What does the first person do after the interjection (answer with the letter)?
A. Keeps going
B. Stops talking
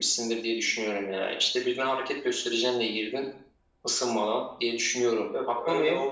B